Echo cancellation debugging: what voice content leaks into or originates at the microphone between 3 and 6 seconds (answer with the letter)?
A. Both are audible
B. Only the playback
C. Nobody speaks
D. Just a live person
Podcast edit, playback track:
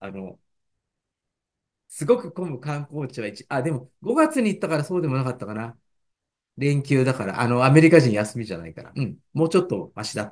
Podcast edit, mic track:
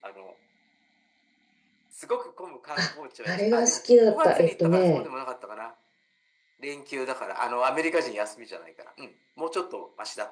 A